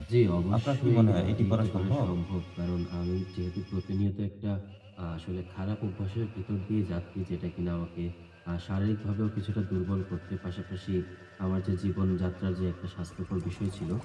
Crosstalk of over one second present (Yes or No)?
Yes